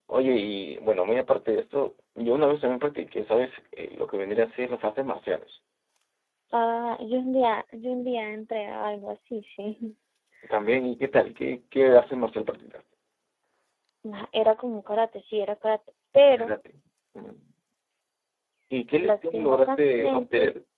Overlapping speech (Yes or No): Yes